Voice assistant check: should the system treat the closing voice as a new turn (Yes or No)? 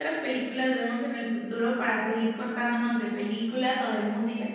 Yes